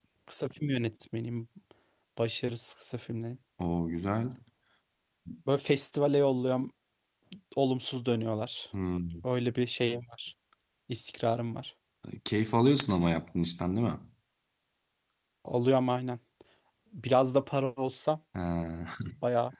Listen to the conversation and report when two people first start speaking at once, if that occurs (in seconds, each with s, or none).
none